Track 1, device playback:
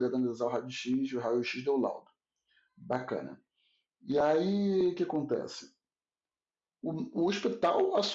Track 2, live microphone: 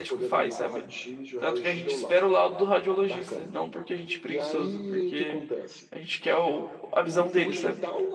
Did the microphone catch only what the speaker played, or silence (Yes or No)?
No